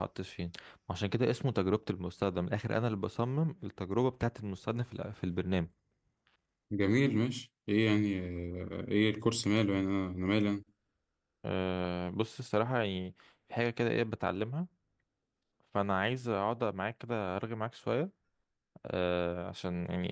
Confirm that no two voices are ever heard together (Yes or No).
Yes